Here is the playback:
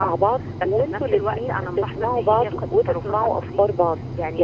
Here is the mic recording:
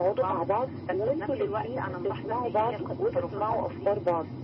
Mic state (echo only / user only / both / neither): echo only